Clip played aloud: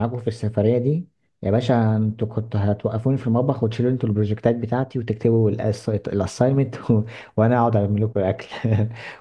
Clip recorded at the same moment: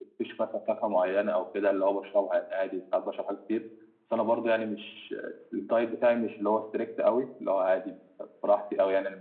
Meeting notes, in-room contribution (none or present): present